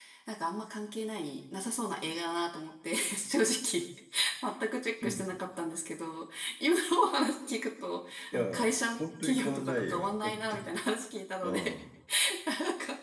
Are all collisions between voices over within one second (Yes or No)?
No